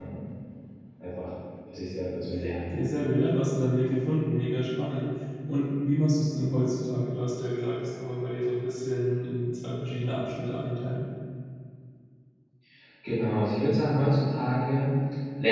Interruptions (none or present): none